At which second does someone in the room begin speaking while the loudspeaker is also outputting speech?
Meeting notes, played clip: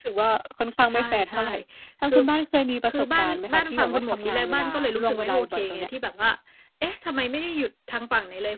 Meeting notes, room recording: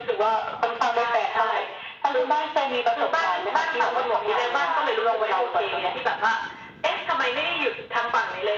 none

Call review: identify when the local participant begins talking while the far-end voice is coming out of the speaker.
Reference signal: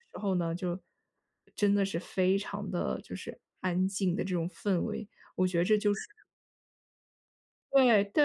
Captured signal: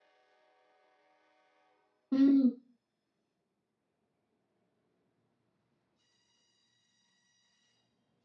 2 s

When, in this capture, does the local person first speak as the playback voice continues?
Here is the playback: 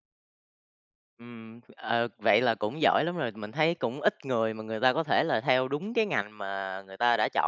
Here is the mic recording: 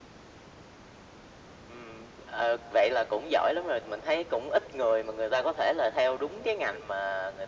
none

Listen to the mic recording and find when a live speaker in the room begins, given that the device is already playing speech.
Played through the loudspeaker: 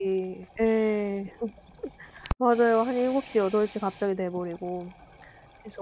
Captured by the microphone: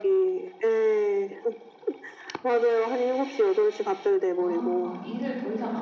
4 s

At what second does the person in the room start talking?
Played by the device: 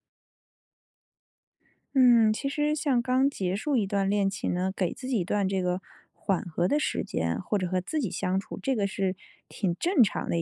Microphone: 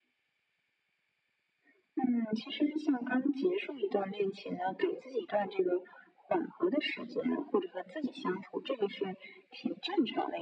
none

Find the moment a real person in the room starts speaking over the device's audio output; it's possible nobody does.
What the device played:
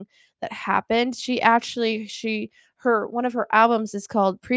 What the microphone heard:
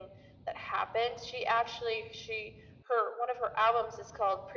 none

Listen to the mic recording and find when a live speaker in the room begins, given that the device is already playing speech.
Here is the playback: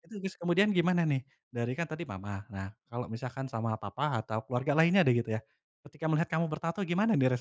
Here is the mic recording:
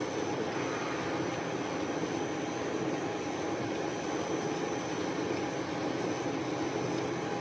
none

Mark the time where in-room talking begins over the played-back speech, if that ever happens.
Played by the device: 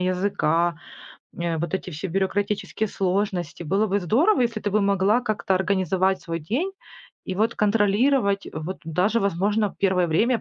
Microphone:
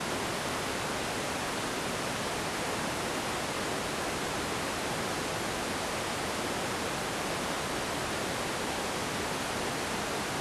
none

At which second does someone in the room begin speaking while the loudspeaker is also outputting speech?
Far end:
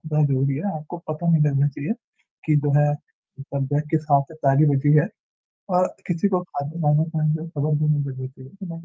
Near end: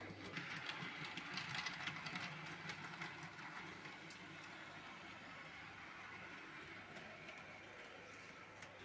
none

